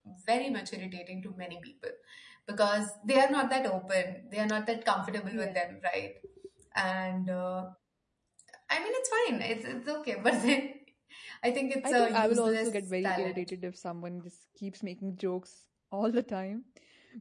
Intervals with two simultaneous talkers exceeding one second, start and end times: 11.8-13.5

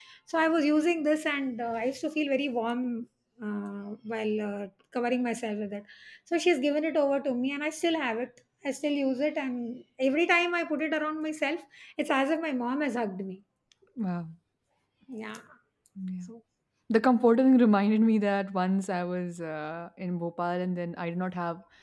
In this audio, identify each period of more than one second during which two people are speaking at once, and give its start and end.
none

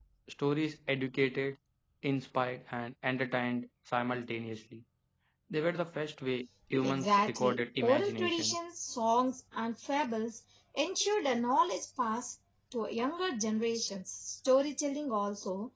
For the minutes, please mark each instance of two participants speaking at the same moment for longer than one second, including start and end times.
6.8-8.6

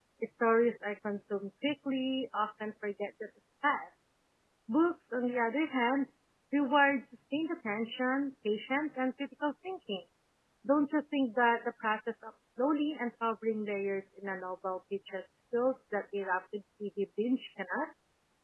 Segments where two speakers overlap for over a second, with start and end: none

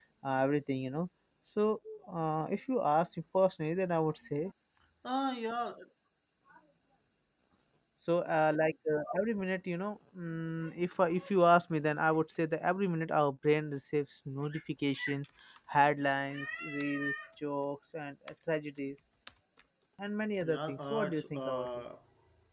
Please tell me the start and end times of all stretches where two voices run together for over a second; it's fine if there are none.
20.4-21.7

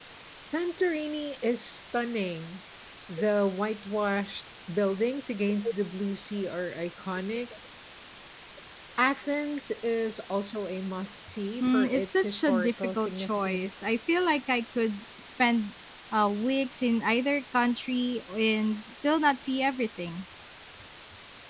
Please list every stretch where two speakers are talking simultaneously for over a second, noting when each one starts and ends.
11.6-13.8

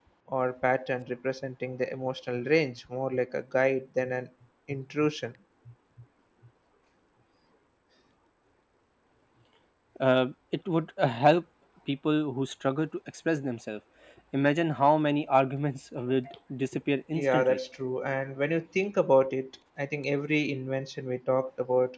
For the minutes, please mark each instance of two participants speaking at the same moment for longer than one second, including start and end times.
none

